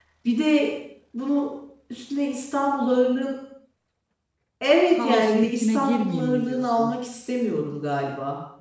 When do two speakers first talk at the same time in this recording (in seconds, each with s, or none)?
4.9 s